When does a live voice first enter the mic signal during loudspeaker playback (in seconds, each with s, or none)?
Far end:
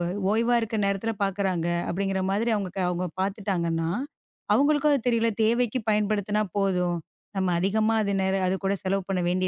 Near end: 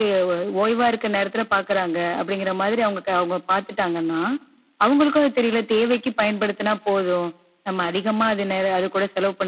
none